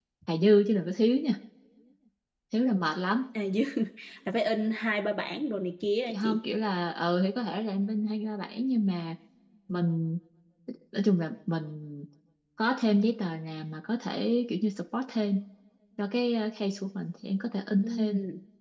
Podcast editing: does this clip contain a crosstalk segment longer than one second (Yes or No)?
No